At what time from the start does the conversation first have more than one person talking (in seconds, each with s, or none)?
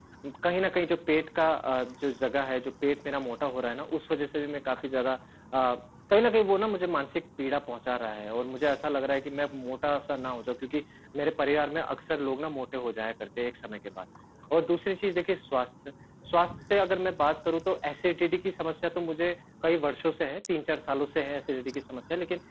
none